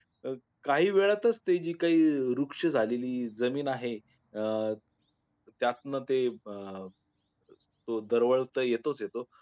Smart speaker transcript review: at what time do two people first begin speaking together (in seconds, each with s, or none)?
none